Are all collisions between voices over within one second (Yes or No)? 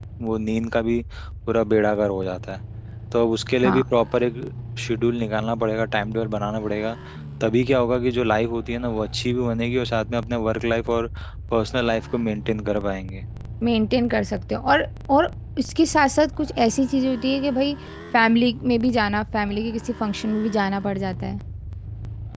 Yes